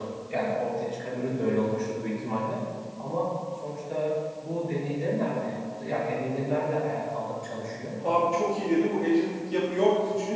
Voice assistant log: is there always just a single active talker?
Yes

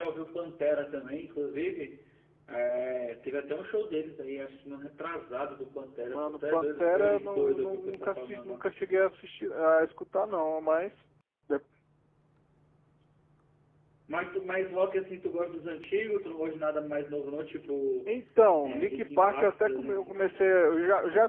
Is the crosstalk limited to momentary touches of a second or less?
No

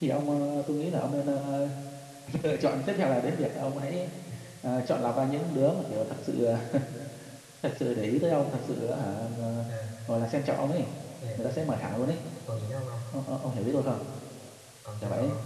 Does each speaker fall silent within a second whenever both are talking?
Yes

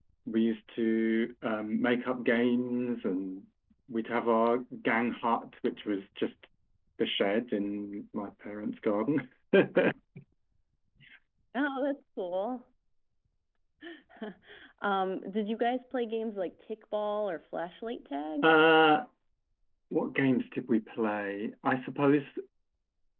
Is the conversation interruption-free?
Yes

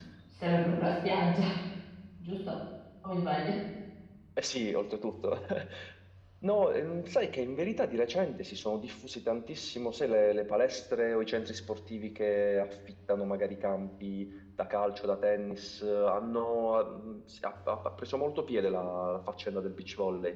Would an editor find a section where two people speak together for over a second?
No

